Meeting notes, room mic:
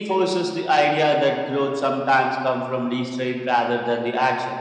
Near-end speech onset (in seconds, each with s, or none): none